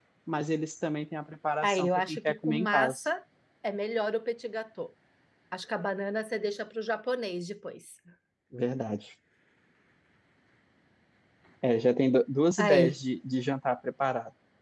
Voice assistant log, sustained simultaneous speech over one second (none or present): present